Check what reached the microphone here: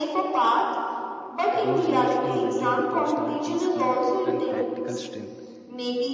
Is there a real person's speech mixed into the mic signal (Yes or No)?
Yes